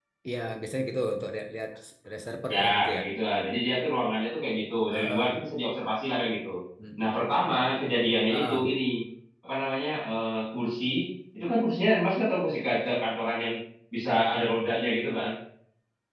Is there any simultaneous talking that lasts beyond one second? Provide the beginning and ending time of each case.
none

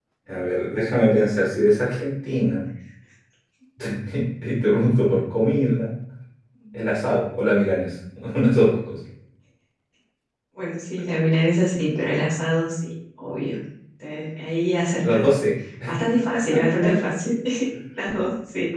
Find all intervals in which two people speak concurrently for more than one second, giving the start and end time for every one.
none

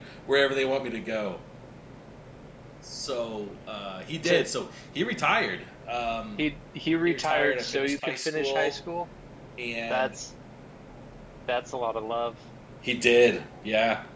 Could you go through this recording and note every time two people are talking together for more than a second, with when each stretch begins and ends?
7.0-8.8

